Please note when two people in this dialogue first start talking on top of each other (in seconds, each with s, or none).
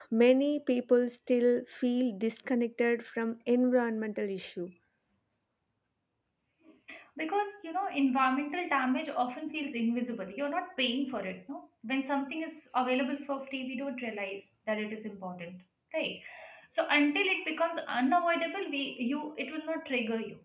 none